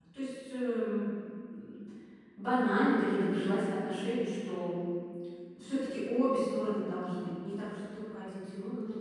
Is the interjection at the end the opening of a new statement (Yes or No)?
Yes